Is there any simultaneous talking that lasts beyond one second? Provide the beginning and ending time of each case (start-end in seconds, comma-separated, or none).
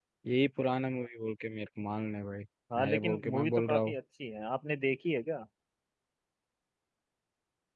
2.8-4.0